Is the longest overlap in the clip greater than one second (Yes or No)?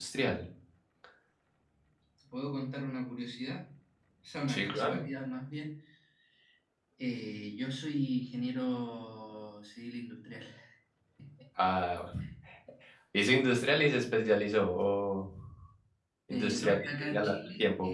Yes